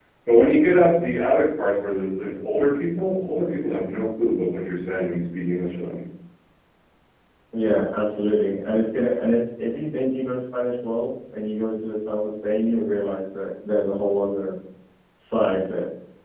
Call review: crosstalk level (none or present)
none